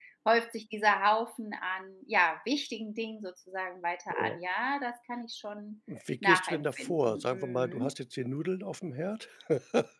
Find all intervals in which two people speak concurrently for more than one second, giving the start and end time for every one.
6.2-7.9

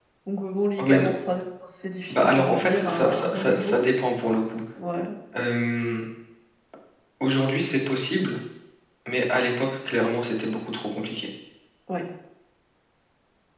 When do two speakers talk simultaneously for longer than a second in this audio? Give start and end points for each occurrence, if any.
2.1-3.8

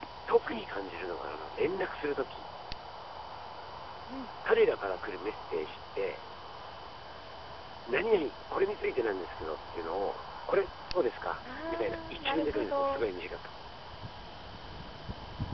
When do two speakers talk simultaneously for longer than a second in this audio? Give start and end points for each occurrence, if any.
11.7-13.1

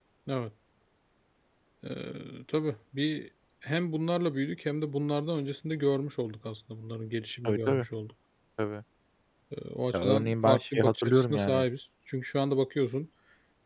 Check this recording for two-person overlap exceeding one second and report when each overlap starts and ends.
9.9-11.6

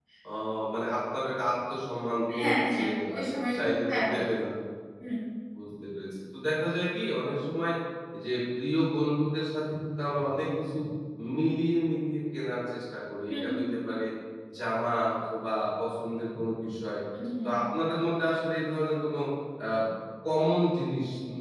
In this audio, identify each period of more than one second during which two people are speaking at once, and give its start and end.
2.4-4.2

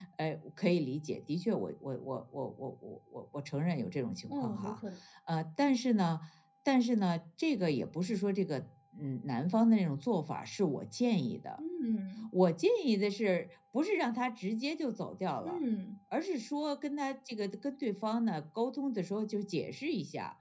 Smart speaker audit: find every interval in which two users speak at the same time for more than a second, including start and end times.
none

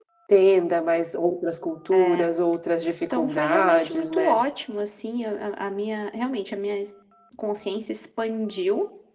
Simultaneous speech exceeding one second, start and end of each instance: 3.1-4.4

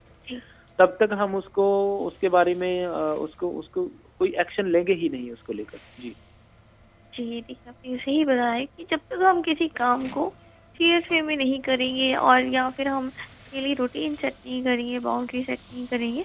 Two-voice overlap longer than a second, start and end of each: none

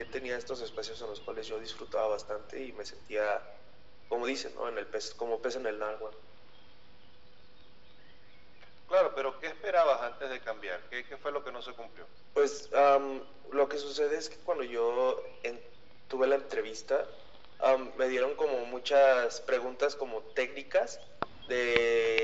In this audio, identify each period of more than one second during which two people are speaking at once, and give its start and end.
none

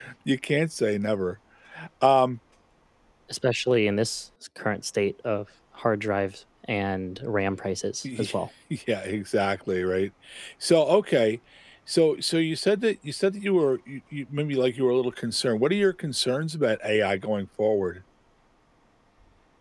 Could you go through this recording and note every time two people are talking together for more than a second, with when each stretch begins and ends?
none

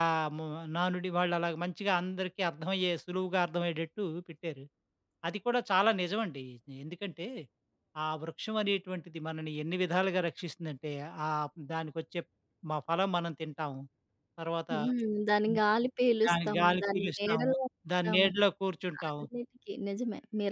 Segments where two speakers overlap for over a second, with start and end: 16.3-17.5

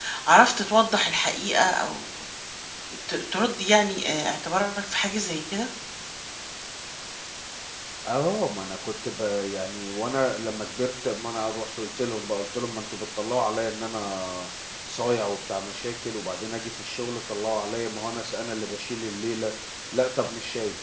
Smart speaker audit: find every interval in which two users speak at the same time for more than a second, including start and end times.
none

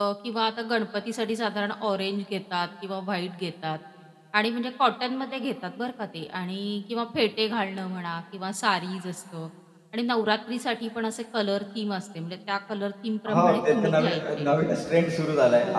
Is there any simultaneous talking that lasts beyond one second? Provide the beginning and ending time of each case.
13.3-14.6

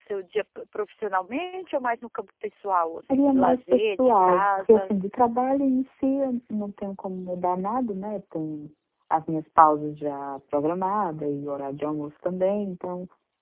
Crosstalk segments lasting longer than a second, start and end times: 3.1-4.9

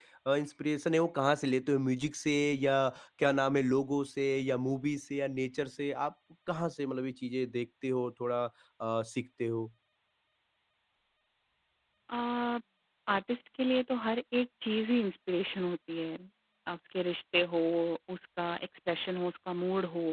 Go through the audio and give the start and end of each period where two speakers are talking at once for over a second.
none

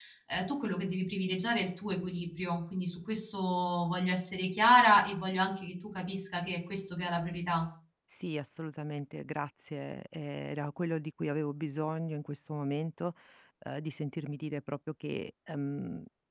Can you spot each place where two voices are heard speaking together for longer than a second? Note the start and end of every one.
none

